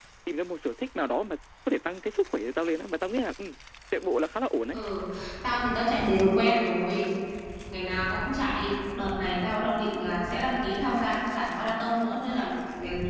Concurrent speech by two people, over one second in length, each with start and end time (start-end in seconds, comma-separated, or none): none